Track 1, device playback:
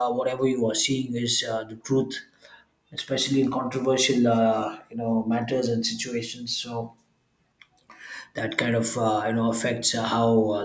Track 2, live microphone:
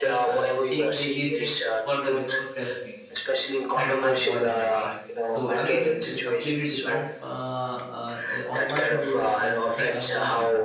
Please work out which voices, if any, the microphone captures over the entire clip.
both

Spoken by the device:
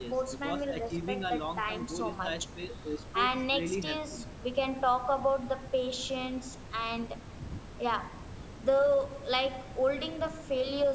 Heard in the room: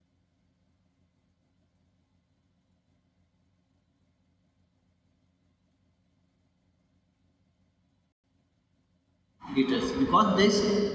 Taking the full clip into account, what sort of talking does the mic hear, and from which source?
user only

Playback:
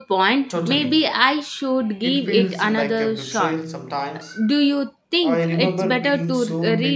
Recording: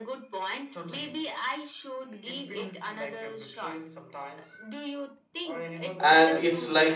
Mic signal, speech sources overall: both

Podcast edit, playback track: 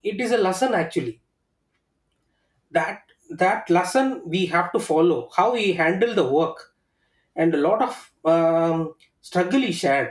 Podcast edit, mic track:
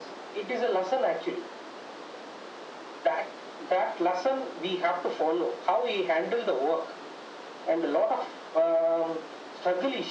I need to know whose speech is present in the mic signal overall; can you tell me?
echo only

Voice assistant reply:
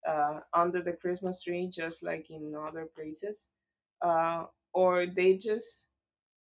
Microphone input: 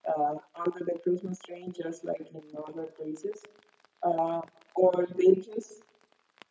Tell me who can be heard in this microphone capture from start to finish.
echo only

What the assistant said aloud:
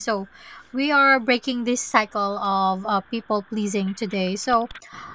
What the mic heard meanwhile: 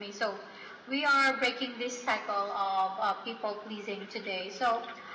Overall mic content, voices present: echo only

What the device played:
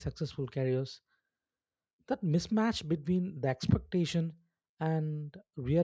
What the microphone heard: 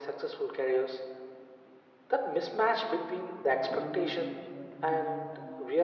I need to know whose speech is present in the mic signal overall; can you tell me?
both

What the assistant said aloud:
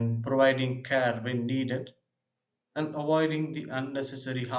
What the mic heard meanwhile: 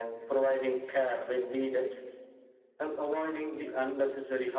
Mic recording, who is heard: echo only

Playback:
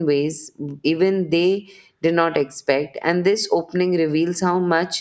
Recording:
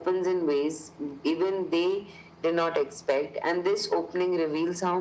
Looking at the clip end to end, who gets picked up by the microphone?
echo only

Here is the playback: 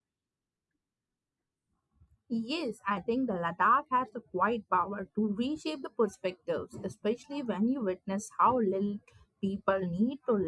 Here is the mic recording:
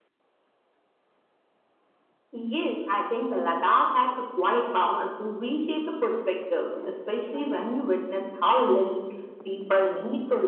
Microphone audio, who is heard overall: echo only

